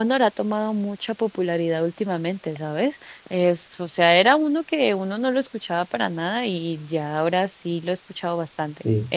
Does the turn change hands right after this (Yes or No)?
Yes